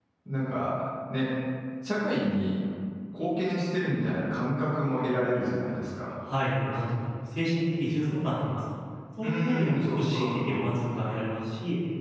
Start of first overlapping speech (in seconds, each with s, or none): 9.2 s